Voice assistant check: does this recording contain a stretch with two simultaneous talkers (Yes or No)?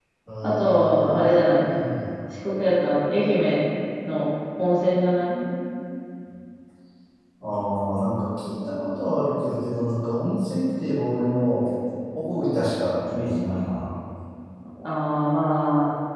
Yes